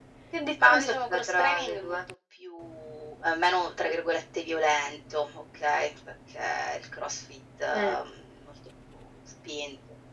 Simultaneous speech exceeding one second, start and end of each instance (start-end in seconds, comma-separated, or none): 0.6-2.0